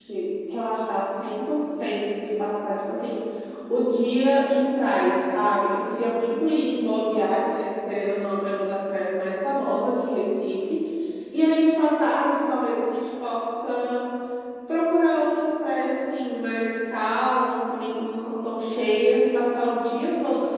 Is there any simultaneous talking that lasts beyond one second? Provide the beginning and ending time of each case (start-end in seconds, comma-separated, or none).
none